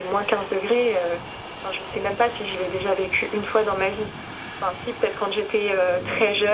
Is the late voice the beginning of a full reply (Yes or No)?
No